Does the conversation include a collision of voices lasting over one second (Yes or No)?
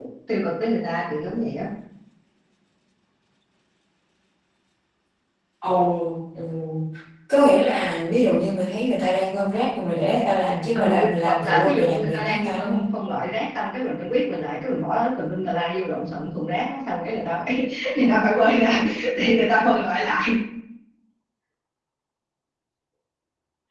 Yes